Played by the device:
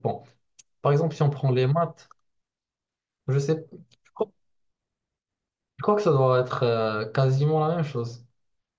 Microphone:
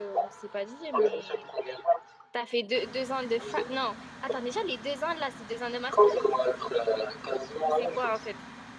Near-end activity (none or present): present